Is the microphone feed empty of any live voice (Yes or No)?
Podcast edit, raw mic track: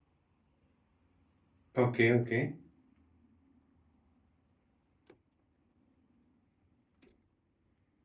No